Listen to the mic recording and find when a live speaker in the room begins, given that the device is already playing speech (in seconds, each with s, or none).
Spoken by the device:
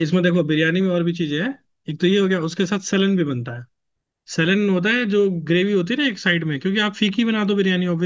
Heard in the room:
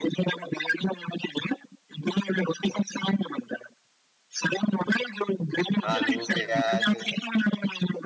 5.9 s